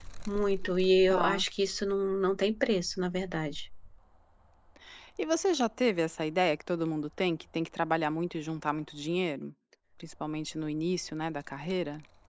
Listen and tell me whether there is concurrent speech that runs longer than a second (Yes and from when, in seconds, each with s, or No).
No